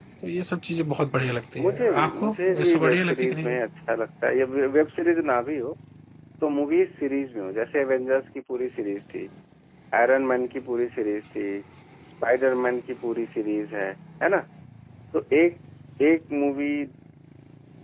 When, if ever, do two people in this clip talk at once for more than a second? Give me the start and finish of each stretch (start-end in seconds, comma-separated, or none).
1.6-3.6